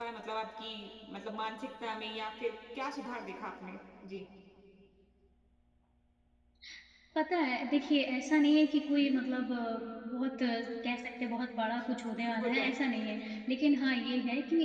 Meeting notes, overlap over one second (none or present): none